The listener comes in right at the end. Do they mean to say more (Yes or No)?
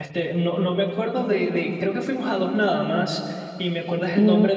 No